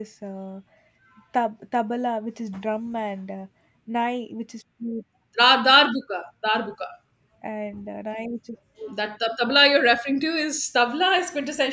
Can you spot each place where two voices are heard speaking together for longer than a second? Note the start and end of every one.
none

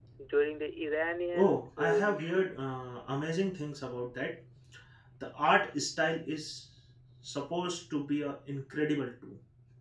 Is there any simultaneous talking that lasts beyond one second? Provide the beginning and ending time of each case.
1.3-2.5

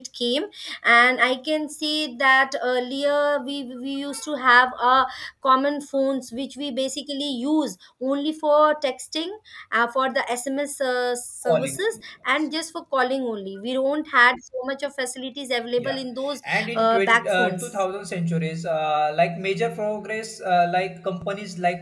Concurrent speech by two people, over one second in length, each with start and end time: 16.5-17.7

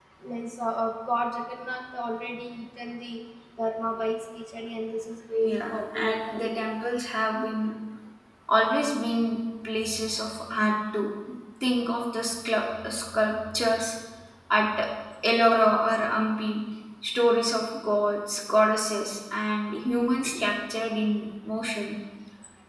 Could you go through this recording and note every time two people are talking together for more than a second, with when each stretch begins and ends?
5.4-6.7

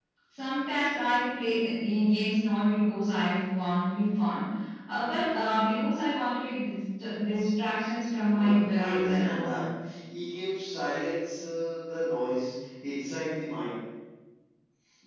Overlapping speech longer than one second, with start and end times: 8.2-9.5

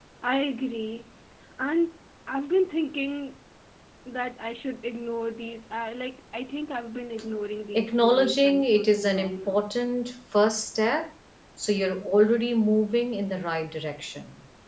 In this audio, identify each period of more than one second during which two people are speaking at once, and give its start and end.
7.7-9.6

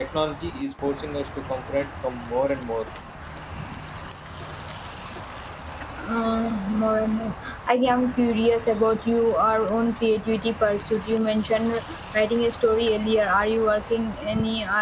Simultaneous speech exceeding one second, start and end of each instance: none

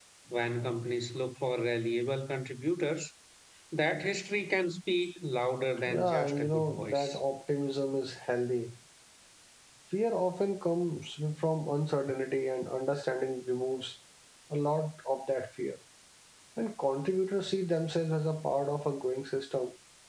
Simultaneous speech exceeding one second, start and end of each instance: 5.9-7.2

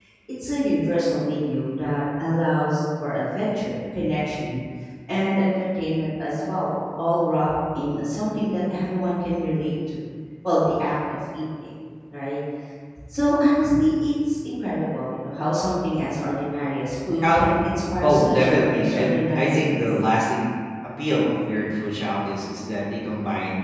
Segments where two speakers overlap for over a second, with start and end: 18.0-19.8

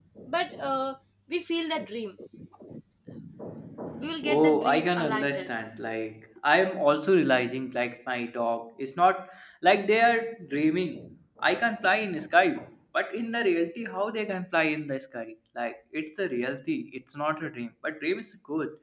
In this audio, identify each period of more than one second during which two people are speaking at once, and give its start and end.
4.2-5.5

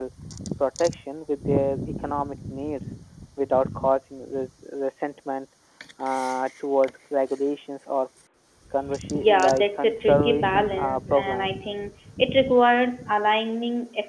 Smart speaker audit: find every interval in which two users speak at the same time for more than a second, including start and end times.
9.1-11.5

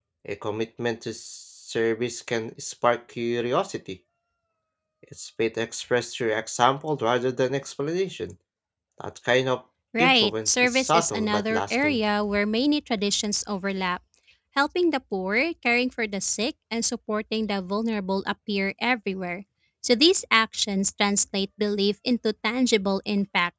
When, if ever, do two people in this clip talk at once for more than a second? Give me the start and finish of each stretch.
10.0-12.0

